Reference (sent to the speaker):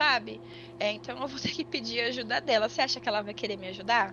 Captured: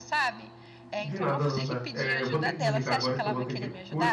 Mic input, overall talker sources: both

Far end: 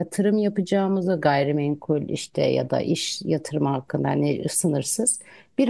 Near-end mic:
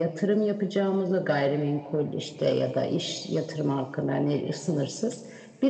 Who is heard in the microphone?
echo only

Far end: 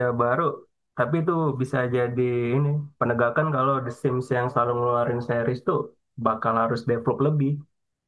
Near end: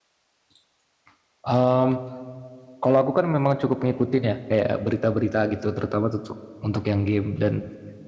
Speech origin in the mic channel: user only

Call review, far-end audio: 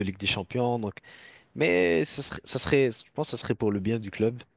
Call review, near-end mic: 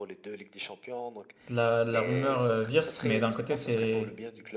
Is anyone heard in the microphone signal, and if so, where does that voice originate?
both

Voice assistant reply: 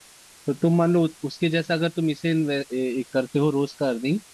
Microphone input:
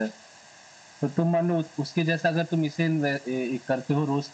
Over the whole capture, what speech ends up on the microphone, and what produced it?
echo only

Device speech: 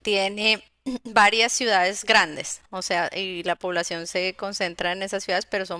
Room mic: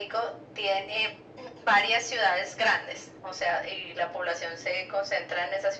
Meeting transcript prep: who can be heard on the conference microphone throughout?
echo only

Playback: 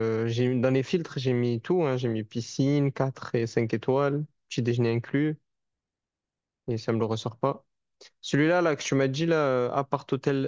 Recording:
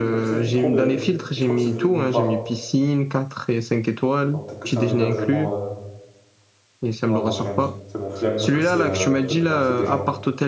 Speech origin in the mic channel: both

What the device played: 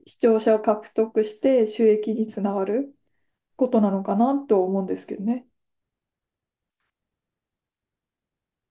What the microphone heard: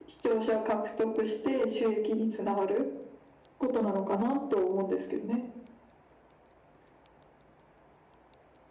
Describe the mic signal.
echo only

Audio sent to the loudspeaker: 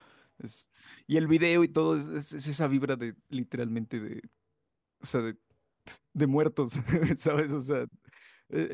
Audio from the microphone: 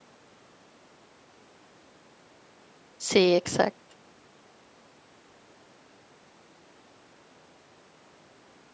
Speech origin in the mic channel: user only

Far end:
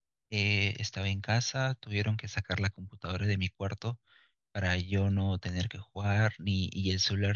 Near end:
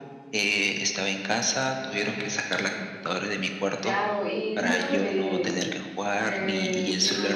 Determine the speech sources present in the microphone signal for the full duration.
both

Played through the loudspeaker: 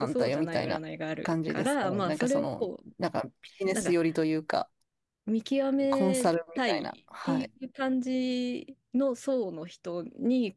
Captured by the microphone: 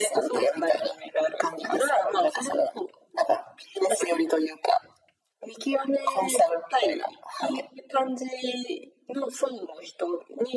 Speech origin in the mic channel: echo only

